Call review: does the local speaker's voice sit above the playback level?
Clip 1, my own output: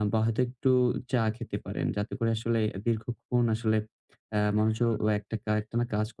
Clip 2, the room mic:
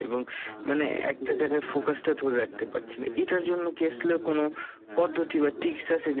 Yes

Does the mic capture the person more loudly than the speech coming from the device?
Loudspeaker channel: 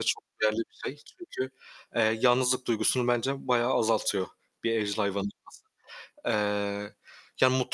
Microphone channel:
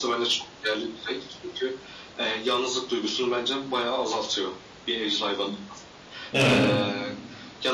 Yes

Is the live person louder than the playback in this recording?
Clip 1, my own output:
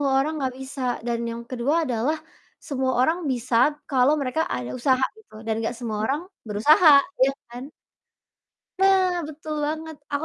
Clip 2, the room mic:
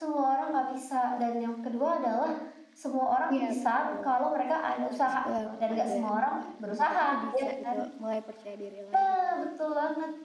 No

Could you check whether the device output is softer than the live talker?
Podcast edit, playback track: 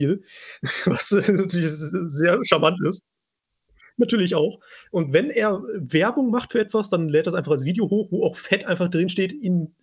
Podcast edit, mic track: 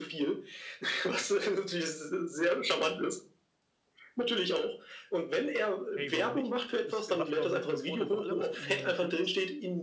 No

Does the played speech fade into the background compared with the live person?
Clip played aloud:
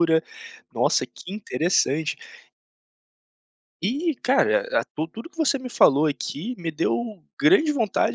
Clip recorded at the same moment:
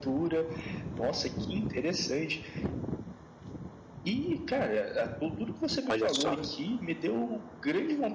Yes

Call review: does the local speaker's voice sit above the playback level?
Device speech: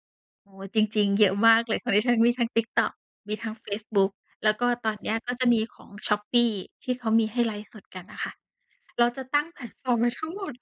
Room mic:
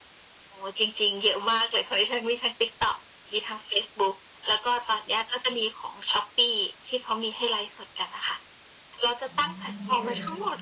No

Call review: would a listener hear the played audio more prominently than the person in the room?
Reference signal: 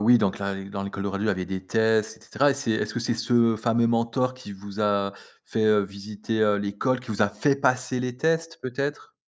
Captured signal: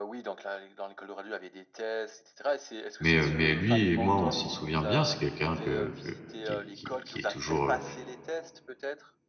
No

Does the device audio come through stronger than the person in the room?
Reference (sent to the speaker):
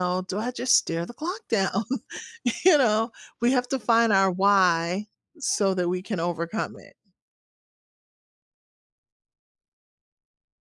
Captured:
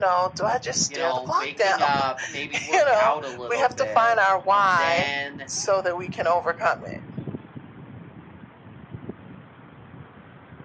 Yes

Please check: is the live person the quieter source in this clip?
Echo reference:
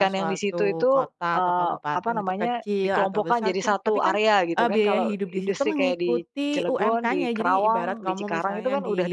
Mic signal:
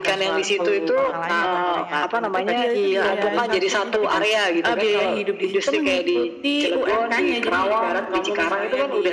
Yes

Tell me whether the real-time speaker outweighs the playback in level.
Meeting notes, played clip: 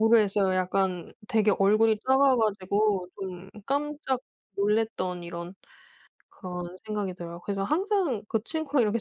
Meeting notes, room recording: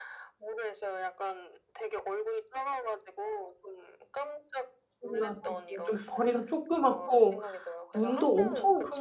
Yes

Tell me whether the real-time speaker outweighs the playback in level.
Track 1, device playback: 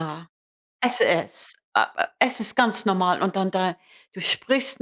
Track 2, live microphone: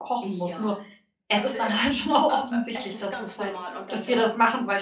Yes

